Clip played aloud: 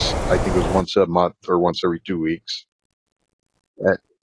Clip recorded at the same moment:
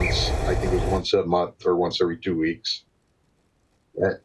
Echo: present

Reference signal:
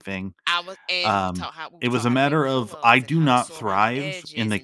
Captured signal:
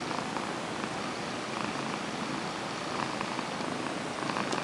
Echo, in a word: none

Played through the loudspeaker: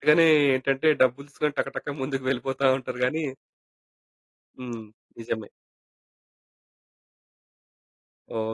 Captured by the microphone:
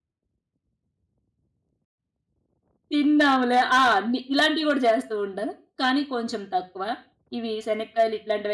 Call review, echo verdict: none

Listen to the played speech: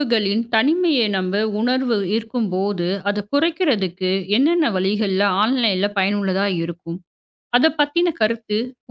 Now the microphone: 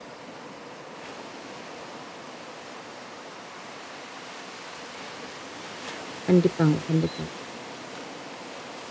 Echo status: none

